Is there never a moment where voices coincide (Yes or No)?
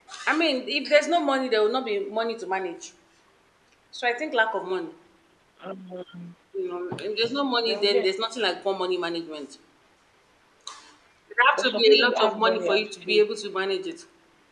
No